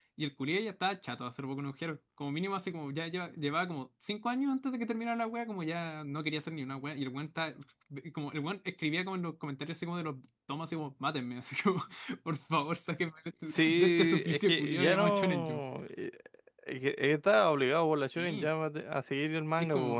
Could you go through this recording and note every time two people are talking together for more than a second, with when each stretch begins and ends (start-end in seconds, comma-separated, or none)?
13.5-15.6